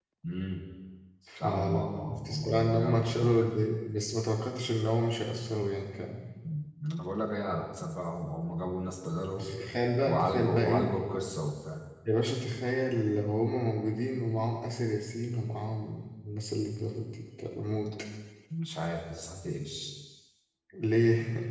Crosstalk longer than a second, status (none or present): present